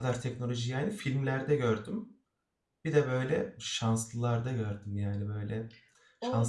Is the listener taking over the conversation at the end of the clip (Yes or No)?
Yes